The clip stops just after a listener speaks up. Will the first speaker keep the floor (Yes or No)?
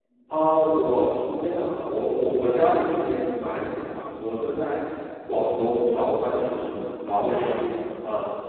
Yes